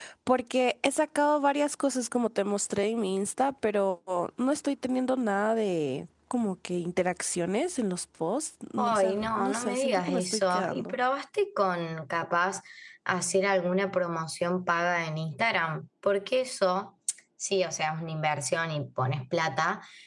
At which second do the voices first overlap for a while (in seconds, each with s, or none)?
8.8 s